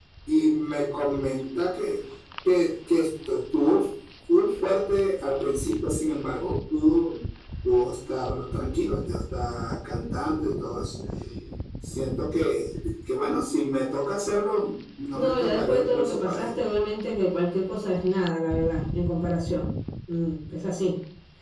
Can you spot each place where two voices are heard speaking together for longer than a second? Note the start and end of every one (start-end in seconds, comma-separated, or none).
15.1-16.6